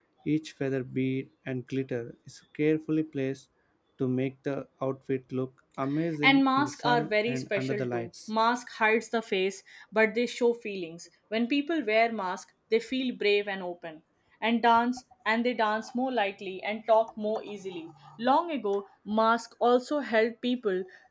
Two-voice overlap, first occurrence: 6.2 s

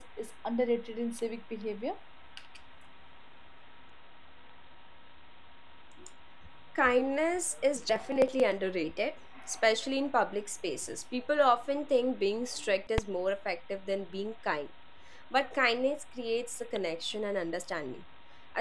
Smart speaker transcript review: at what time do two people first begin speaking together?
none

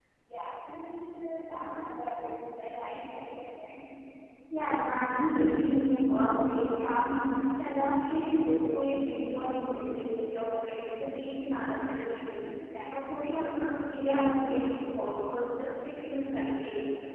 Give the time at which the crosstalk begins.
none

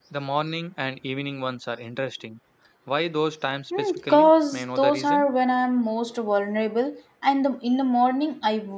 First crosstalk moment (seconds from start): 3.7 s

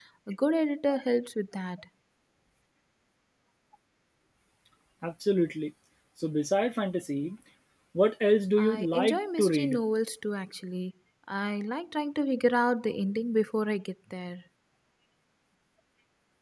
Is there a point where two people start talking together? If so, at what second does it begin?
8.6 s

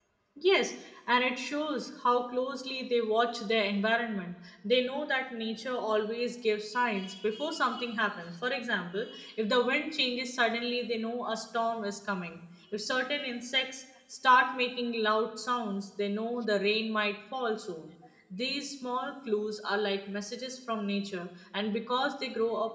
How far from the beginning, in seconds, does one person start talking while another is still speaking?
none

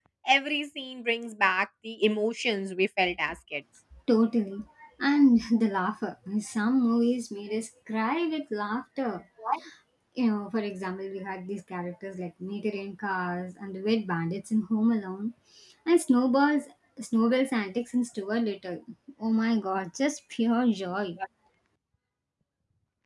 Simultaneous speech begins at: none

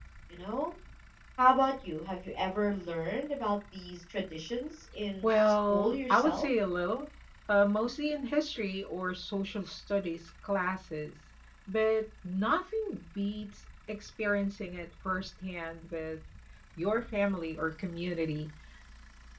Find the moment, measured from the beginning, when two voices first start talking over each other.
5.2 s

